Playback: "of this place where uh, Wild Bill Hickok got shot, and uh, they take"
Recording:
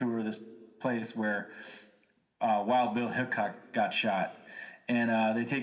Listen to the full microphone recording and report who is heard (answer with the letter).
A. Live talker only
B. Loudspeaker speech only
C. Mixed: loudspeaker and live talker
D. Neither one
B